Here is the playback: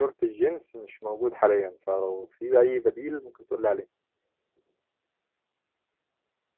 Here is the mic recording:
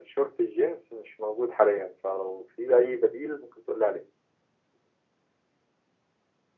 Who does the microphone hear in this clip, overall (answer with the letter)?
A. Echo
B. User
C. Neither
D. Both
A